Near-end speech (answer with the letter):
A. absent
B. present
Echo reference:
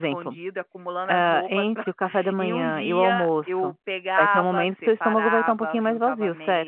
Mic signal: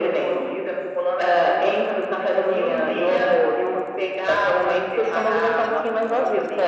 B